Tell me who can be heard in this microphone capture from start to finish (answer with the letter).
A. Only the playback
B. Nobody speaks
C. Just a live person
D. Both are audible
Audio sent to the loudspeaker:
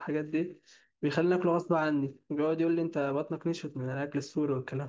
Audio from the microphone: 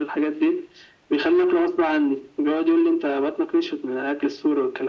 A